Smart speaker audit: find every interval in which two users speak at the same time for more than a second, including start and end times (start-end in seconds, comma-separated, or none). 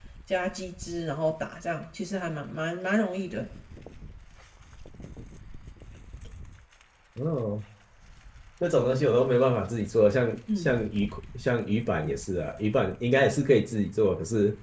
none